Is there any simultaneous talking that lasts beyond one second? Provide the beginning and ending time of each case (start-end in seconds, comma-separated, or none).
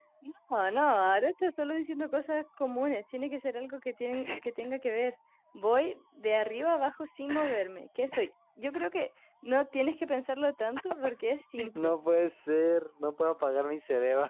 none